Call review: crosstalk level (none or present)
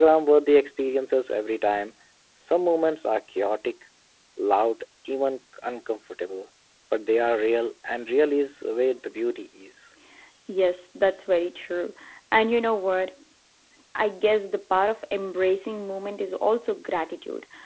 none